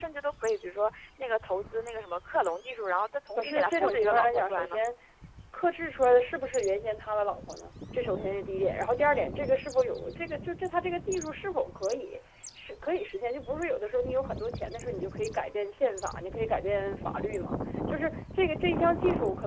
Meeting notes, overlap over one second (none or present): present